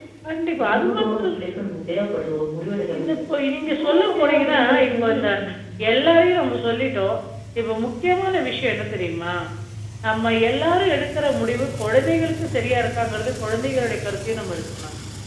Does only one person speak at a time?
No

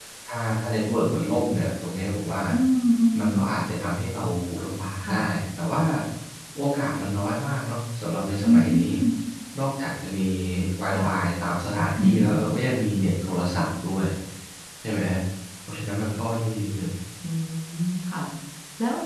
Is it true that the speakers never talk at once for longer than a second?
Yes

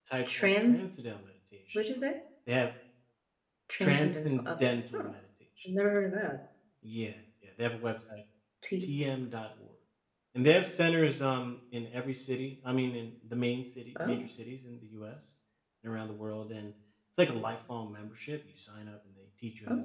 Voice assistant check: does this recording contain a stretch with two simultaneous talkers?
Yes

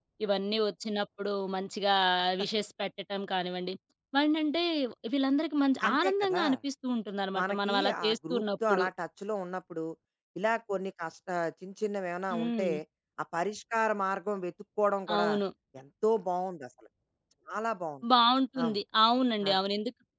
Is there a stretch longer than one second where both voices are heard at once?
Yes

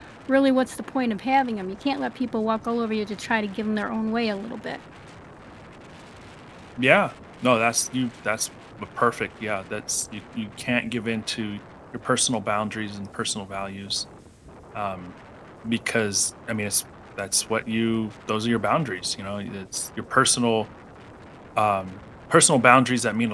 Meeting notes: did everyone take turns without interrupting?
Yes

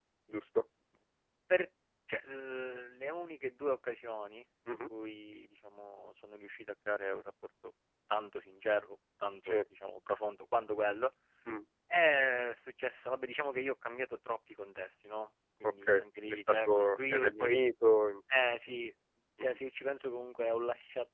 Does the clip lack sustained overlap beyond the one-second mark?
No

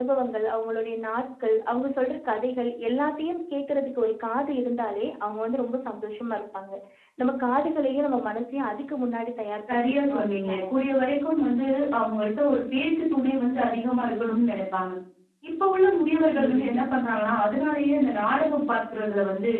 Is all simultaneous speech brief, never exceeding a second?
No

